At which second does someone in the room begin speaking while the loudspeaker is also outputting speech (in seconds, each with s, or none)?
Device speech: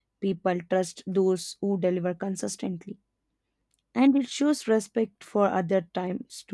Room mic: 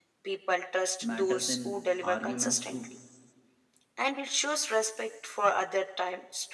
1.0 s